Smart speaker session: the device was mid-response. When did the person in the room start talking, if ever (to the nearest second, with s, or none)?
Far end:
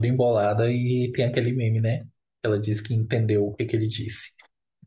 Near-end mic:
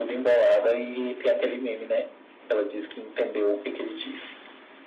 none